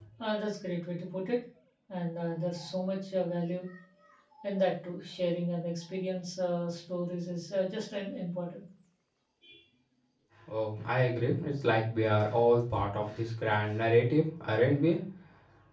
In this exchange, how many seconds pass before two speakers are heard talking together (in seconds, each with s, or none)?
none